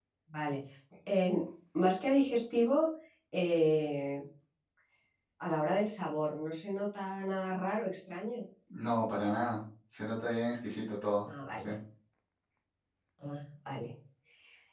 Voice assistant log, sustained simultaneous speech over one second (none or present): none